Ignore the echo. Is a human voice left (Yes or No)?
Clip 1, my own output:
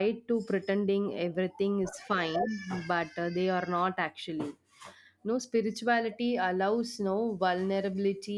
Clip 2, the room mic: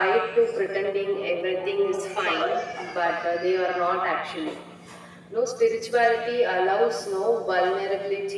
No